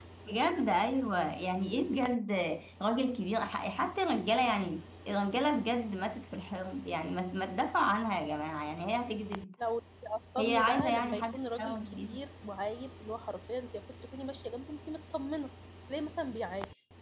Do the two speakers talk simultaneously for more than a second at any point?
Yes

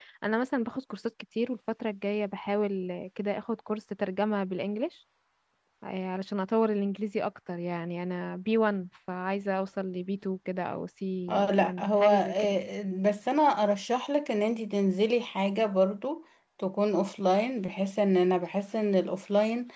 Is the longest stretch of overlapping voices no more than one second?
No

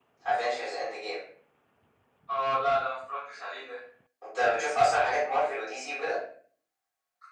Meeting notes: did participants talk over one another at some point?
No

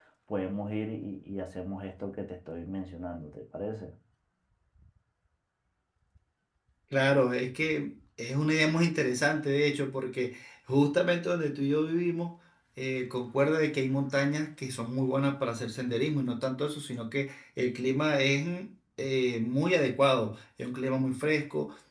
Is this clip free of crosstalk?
Yes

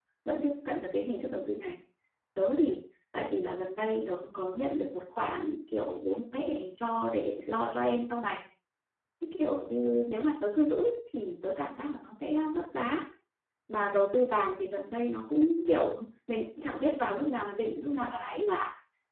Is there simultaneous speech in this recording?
No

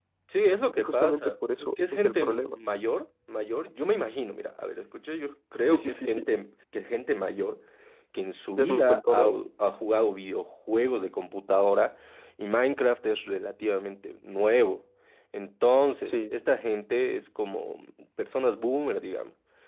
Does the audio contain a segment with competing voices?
Yes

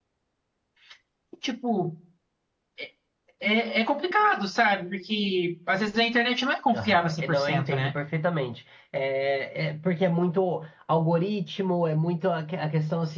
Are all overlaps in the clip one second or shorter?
No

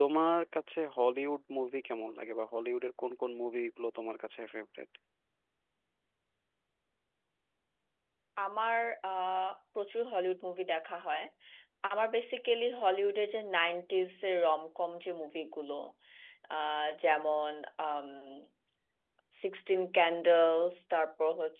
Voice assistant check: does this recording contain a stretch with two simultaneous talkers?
No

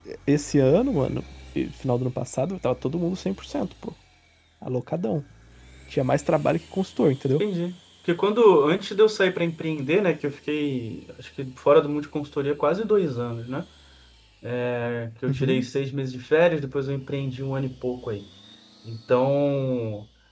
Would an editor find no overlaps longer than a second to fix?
Yes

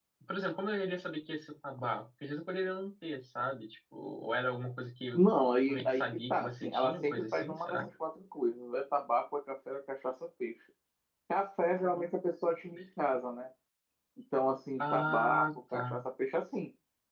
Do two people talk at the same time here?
Yes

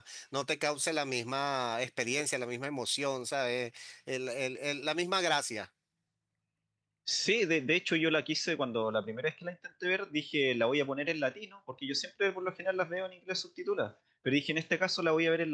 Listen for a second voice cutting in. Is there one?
No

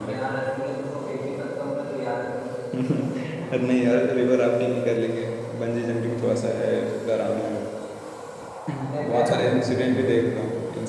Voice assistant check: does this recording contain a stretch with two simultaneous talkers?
Yes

